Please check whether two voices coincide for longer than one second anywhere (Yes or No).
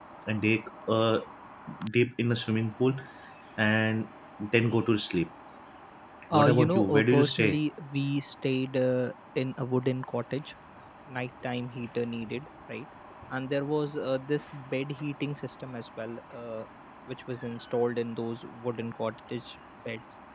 Yes